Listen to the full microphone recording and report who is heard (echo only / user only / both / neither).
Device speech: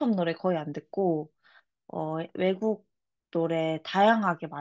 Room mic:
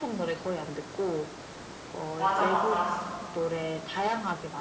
both